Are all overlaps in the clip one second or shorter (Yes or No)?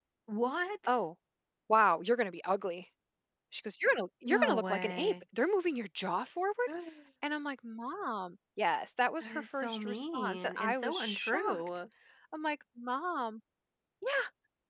No